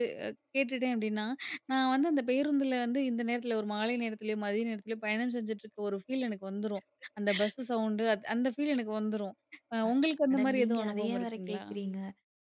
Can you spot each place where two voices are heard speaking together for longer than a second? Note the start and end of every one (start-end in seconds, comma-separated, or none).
10.3-11.6